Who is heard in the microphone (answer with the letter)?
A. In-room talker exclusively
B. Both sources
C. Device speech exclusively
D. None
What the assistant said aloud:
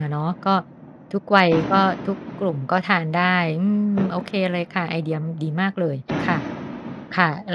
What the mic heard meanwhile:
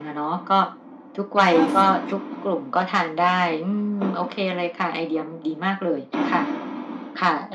B